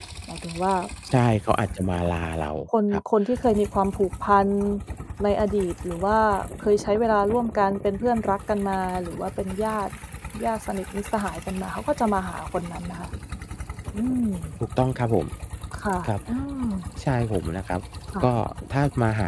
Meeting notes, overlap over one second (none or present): none